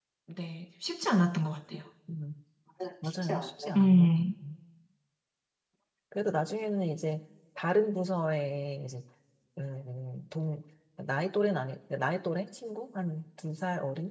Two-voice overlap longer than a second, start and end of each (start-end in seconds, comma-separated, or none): 3.0-4.2